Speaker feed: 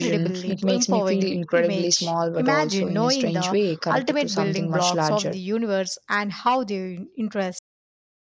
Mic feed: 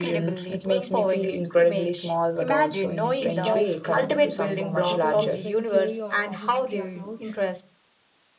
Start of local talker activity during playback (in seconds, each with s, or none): 3.1 s